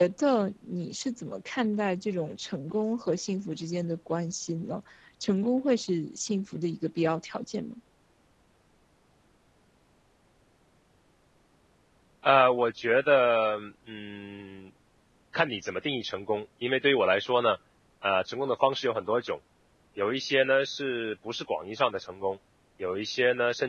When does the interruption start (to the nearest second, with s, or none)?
none